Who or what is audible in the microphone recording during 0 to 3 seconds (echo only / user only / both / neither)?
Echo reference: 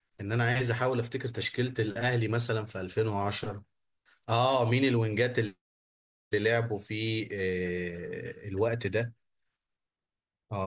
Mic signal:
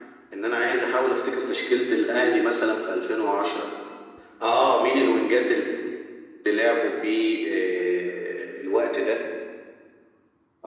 echo only